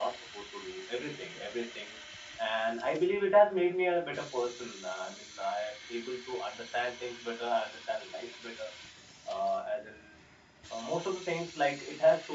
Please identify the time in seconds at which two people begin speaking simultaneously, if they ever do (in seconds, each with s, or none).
none